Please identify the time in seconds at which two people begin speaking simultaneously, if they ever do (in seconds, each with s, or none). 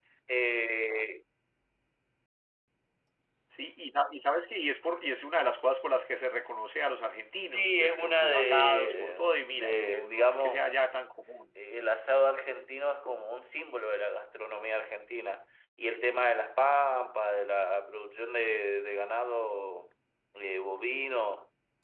7.5 s